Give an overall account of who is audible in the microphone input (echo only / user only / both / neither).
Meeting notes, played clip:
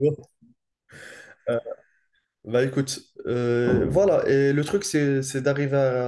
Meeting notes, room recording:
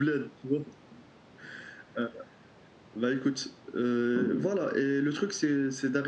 echo only